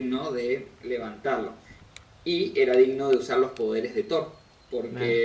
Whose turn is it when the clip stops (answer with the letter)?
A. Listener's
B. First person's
B